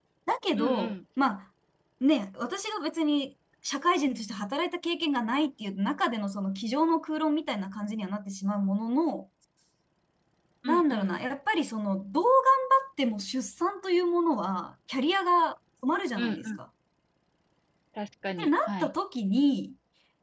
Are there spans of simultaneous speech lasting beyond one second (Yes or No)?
No